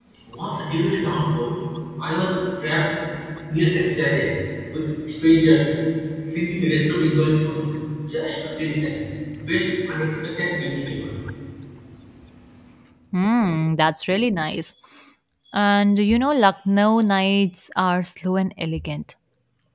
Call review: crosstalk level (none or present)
none